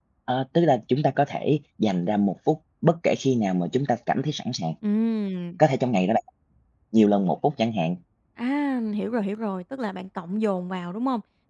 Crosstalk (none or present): none